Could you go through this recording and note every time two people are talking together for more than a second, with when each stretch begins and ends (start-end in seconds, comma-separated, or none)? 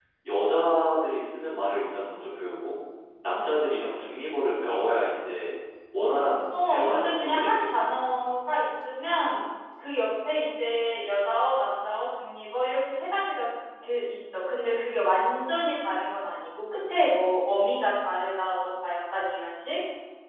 6.6-7.9